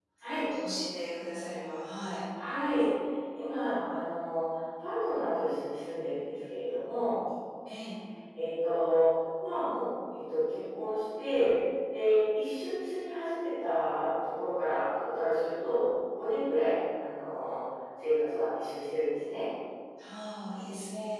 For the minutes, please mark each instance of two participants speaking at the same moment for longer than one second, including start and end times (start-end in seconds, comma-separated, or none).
none